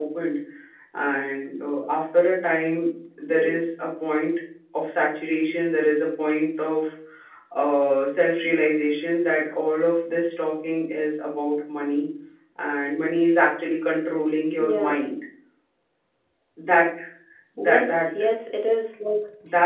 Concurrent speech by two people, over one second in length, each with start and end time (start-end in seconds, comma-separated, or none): none